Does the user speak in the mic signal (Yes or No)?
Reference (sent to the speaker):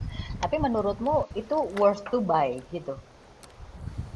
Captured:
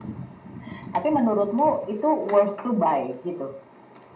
No